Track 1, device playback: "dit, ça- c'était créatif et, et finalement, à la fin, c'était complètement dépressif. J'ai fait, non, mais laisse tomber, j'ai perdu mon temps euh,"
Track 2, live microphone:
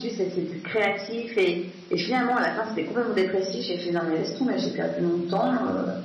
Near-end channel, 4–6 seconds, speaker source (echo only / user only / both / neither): echo only